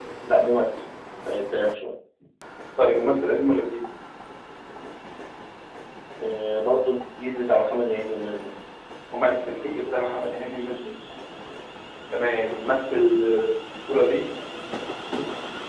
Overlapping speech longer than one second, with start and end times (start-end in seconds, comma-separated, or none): none